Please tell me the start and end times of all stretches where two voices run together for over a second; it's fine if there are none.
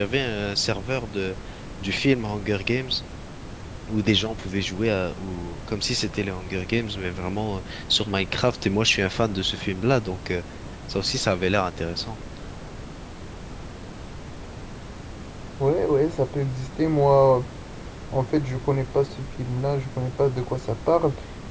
none

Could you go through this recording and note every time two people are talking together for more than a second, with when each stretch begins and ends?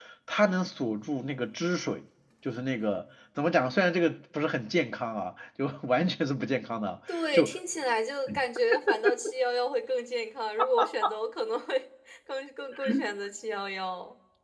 none

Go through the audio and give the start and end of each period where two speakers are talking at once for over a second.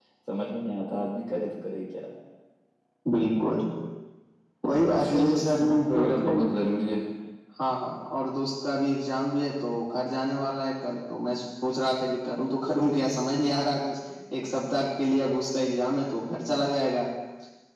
5.0-6.3

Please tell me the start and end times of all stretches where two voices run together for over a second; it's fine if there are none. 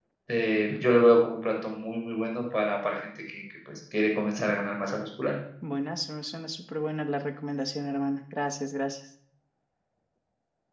none

